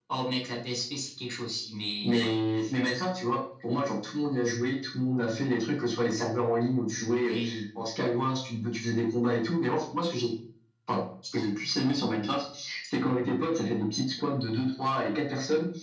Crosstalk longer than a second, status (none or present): none